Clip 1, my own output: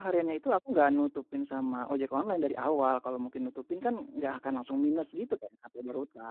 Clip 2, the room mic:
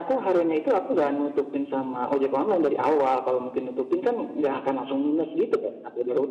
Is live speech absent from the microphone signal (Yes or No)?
Yes